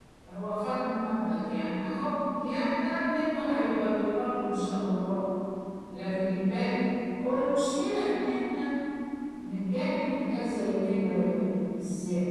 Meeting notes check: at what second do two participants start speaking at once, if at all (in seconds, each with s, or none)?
none